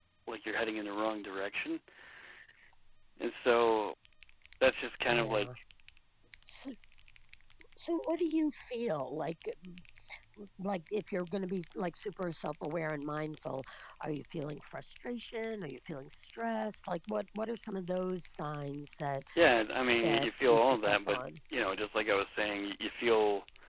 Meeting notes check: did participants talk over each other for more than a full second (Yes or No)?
Yes